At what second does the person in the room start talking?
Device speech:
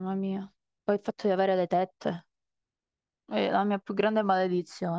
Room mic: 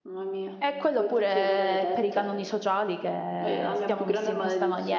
0.6 s

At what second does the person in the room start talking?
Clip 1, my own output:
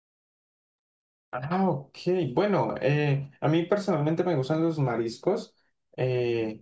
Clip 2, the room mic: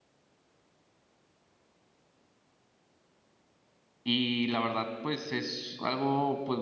4.0 s

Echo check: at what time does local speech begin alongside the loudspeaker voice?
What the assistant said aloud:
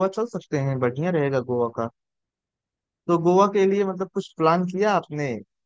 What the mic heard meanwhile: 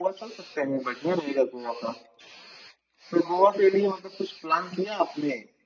none

